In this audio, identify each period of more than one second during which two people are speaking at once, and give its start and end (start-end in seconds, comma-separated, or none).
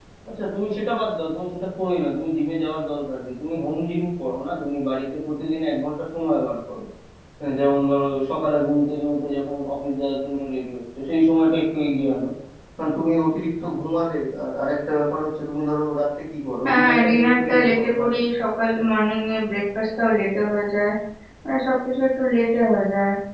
16.6-18.1